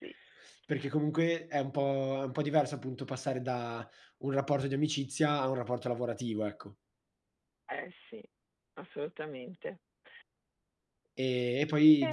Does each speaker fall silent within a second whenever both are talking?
Yes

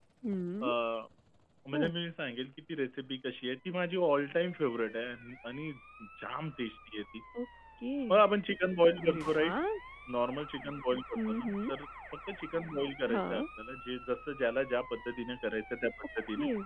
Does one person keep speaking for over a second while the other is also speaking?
No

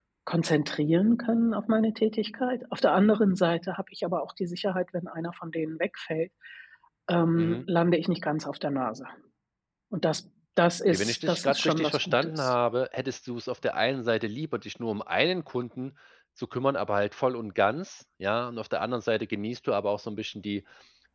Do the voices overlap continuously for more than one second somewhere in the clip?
Yes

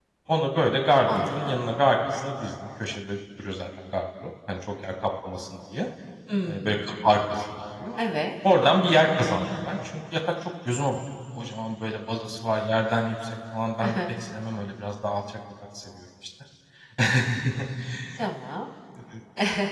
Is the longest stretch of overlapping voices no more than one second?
Yes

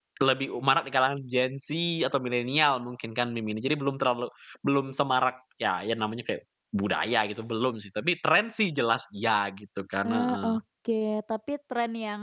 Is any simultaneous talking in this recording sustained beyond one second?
No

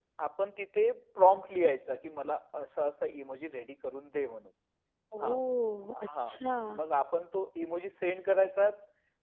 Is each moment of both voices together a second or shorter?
Yes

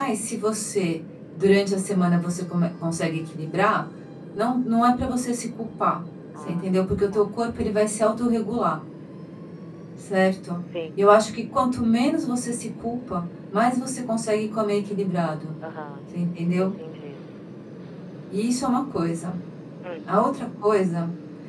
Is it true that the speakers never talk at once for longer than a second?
Yes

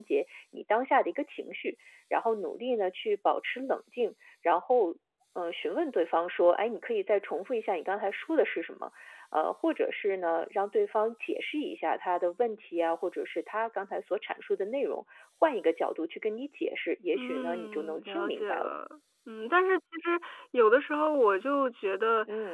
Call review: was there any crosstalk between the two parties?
Yes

